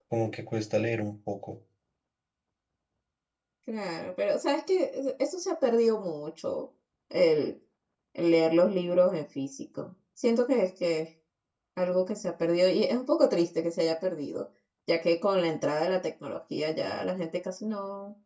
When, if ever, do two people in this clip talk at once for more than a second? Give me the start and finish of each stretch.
none

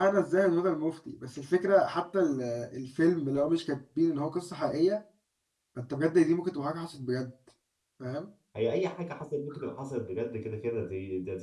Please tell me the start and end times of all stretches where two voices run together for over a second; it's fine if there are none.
none

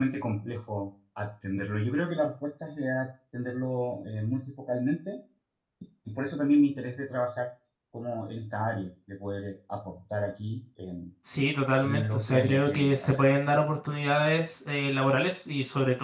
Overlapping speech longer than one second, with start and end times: 11.8-13.2

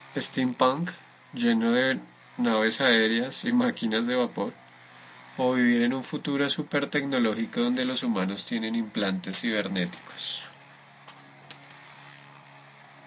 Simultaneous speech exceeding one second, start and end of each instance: none

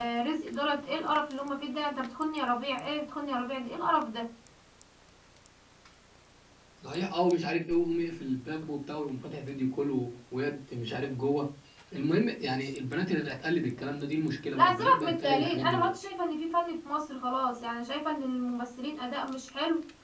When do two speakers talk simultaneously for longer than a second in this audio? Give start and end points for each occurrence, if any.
14.6-15.9

